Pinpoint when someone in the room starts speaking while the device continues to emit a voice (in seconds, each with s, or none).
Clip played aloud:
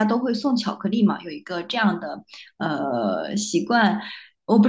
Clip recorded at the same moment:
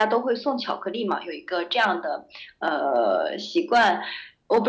none